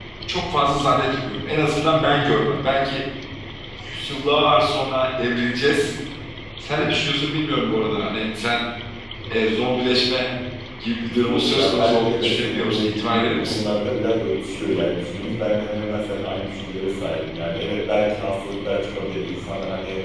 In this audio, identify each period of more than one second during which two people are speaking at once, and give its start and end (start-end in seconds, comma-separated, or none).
11.2-13.6